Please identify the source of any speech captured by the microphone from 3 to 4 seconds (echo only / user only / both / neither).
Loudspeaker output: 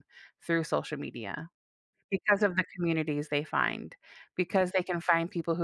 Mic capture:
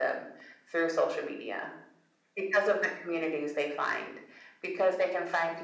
echo only